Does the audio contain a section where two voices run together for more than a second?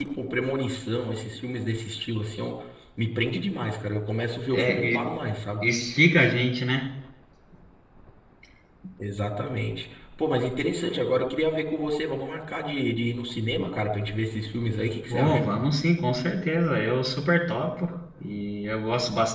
No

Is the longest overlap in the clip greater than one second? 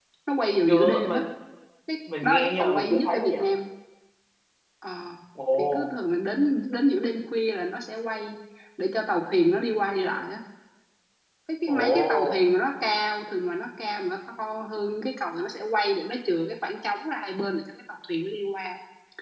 Yes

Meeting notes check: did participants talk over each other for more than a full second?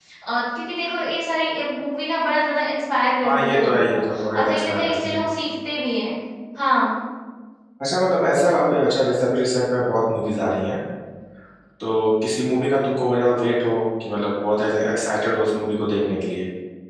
Yes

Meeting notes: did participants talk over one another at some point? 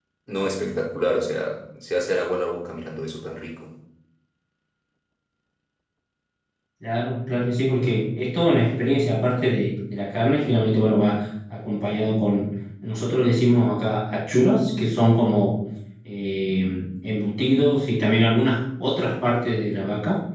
No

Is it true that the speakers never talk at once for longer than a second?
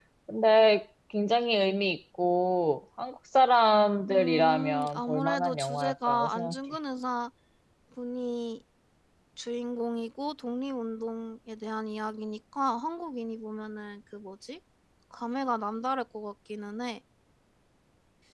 No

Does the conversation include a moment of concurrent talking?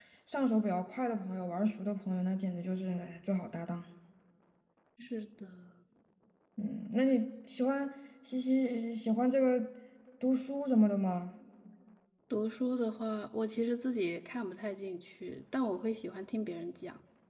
No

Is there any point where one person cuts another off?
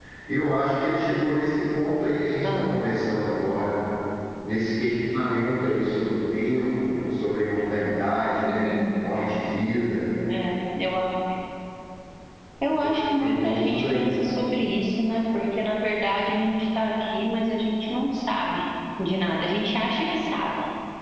Yes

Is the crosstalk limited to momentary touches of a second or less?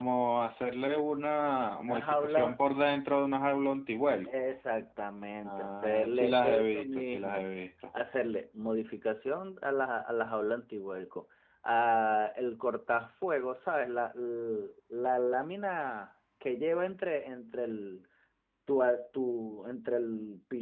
No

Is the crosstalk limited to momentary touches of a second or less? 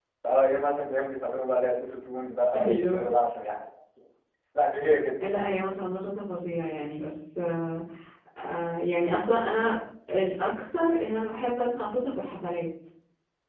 Yes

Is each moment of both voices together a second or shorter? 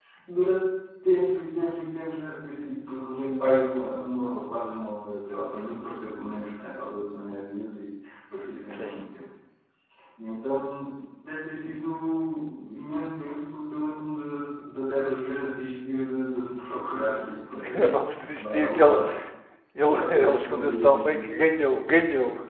No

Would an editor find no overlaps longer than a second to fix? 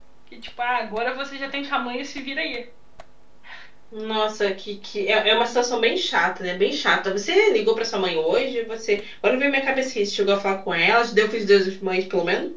Yes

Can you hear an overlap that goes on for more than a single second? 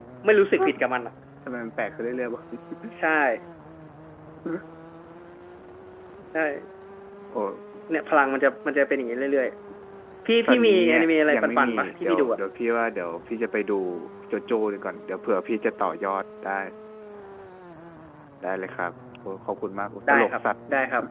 Yes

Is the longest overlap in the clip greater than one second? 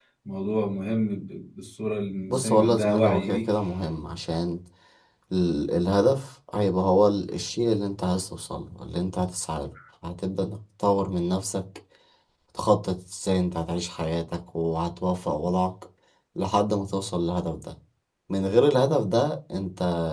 Yes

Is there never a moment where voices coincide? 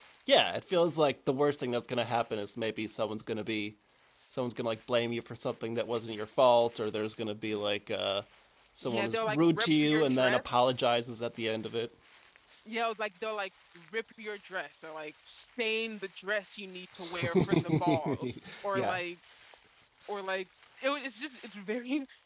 No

